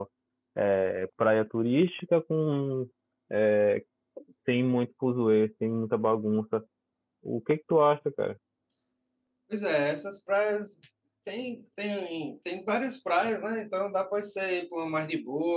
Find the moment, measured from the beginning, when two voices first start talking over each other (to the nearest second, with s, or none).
none